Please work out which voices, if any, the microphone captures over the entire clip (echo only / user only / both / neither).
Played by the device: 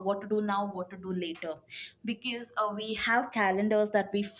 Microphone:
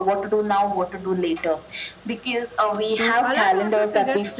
both